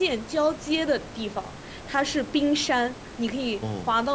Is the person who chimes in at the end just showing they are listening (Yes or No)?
Yes